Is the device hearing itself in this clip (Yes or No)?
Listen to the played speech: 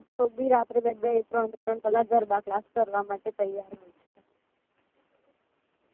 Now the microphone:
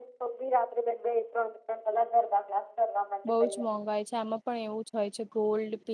Yes